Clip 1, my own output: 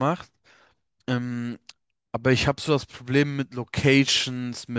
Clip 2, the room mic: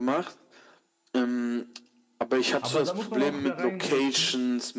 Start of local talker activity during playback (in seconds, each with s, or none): 2.6 s